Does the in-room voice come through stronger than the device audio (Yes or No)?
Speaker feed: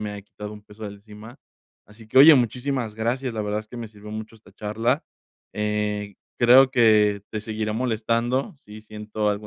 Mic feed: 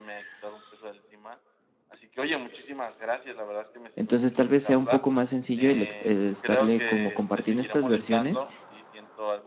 Yes